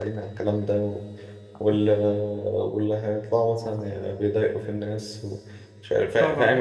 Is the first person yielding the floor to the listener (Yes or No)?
No